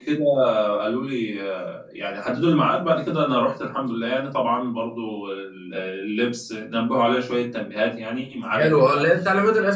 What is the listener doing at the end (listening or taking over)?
taking over